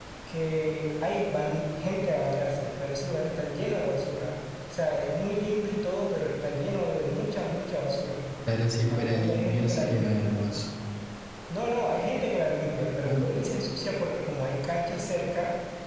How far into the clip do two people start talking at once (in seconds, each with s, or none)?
8.9 s